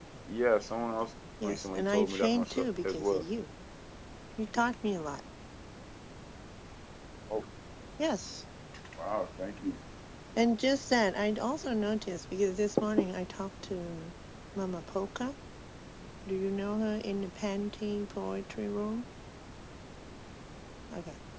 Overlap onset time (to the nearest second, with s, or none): 1 s